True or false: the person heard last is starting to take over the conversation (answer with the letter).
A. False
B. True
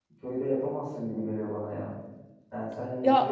A